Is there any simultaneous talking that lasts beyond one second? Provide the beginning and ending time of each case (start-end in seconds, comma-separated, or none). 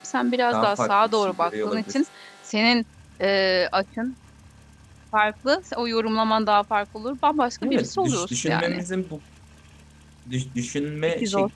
0.5-2.0, 7.6-8.8